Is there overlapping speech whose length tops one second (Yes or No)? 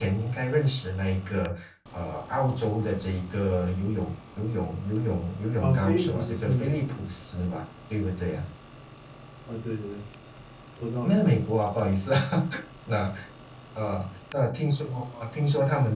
Yes